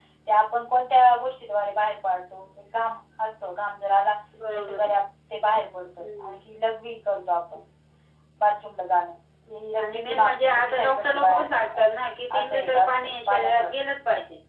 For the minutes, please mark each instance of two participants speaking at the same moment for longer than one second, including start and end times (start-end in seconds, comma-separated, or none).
9.8-11.8, 12.4-13.7